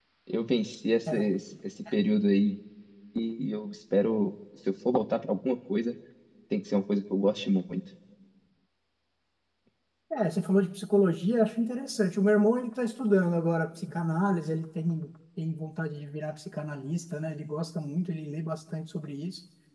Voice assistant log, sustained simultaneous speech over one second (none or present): none